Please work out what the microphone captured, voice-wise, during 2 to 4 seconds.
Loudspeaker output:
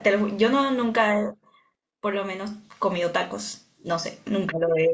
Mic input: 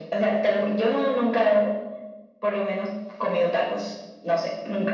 echo only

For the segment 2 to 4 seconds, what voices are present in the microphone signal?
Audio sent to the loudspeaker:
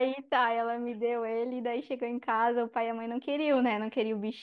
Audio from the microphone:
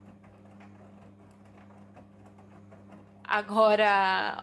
user only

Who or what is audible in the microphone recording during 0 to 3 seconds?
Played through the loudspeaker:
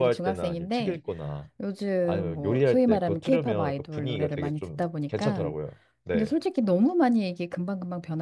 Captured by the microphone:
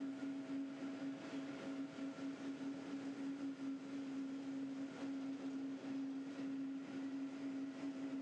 neither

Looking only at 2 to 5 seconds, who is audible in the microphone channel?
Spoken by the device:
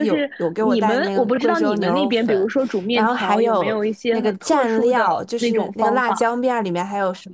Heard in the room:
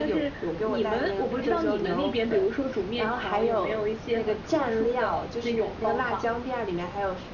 echo only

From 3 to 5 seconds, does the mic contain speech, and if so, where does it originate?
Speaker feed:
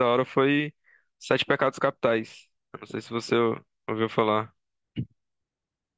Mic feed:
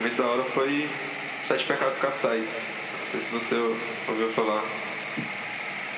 echo only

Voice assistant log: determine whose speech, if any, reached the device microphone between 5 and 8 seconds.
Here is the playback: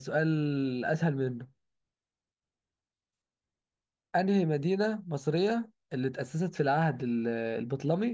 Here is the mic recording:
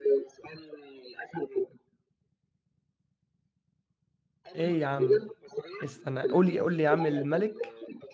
both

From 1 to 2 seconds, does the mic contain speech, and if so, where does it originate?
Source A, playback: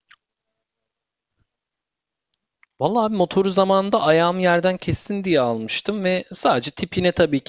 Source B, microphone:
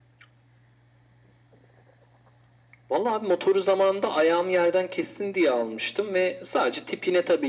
neither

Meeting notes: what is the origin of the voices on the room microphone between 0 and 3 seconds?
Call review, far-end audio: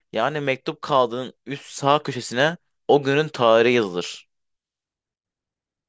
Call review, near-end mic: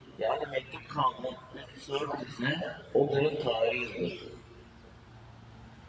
echo only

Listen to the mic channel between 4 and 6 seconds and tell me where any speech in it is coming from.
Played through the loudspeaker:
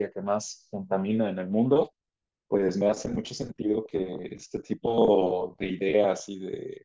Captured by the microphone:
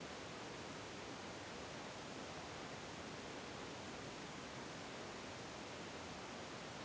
neither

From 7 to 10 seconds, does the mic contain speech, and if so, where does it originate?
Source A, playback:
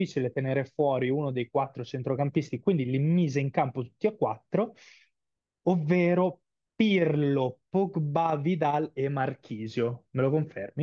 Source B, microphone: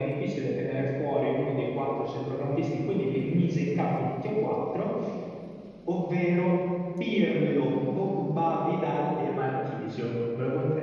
echo only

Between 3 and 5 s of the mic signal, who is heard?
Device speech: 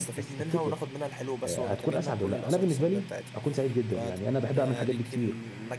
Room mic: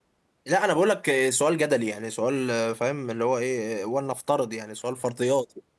user only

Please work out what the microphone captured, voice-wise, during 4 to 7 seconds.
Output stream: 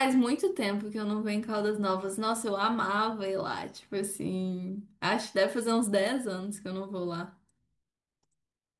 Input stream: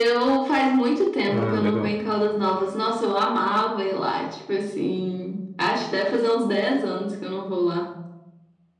echo only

